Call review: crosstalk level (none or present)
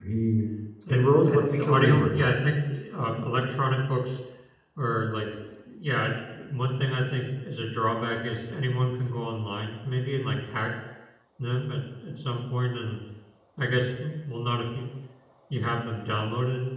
present